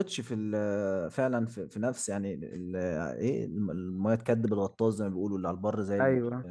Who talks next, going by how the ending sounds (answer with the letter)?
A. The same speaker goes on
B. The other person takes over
B